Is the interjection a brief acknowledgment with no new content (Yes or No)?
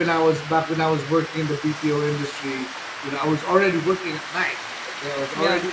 Yes